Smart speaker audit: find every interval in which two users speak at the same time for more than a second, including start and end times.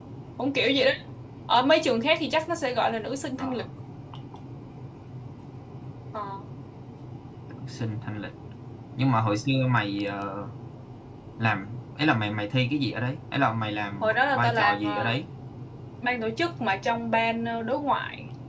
14.0-15.2

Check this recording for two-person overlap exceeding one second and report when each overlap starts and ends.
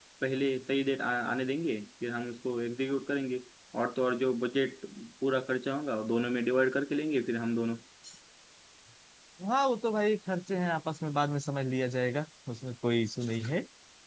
none

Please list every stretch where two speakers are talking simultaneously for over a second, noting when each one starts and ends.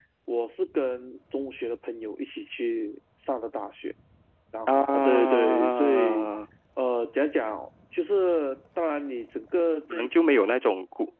4.7-6.3

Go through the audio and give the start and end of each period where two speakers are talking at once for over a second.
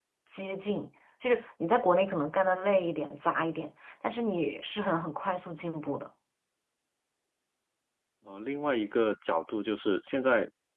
none

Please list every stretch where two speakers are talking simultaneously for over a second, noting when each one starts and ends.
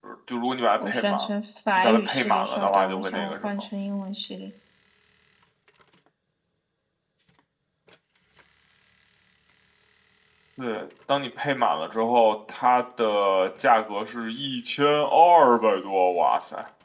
1.8-3.5

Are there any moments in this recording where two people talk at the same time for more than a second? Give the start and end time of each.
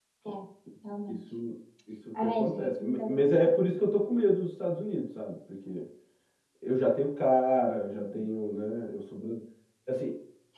2.2-3.6

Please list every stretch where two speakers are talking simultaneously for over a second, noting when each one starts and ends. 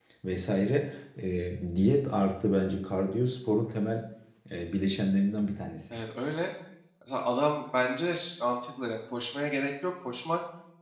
none

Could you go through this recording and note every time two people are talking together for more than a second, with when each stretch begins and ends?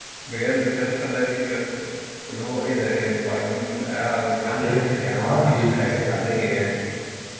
4.4-5.9

